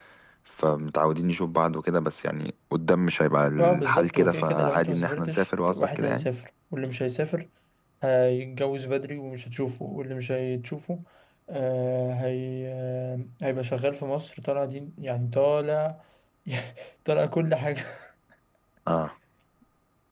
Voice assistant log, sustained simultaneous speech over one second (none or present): present